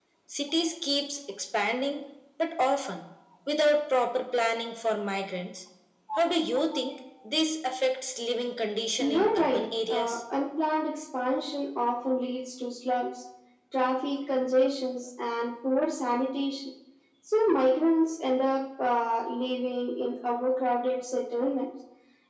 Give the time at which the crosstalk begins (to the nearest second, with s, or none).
9 s